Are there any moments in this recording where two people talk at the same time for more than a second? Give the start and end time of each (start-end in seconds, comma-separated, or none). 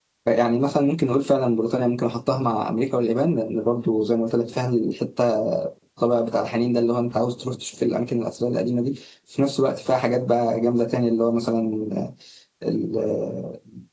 none